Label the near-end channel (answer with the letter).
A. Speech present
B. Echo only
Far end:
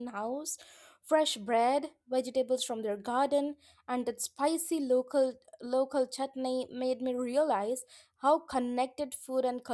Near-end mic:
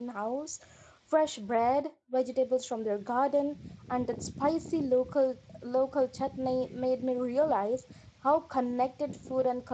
B